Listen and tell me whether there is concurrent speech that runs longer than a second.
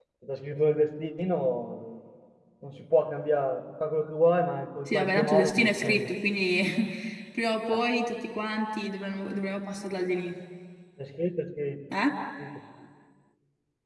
Yes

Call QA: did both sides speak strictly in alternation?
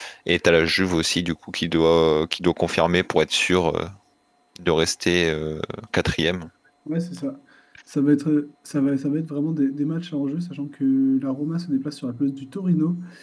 Yes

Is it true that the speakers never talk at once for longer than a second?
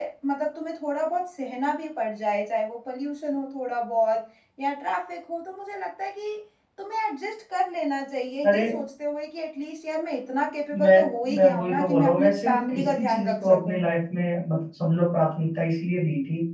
No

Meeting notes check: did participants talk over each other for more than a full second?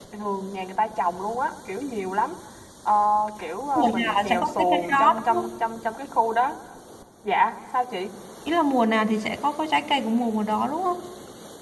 Yes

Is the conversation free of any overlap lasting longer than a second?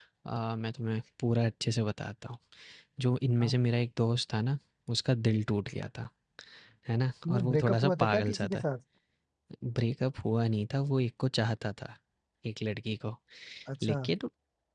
No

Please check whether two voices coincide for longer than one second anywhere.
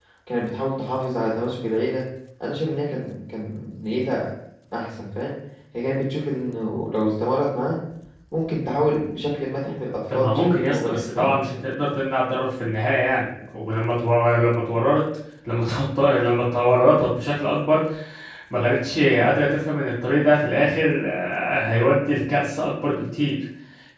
Yes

